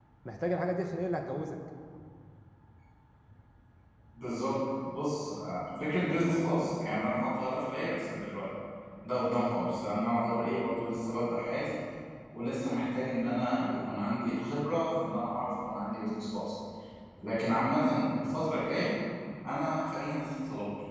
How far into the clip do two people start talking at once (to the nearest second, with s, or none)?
none